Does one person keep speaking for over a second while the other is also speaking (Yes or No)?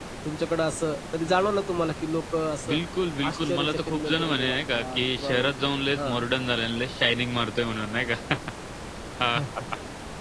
Yes